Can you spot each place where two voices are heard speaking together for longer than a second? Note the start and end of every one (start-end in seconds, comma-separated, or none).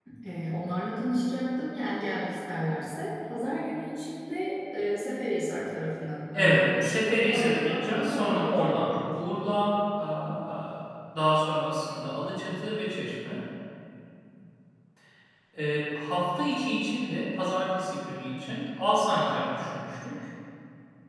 6.3-9.0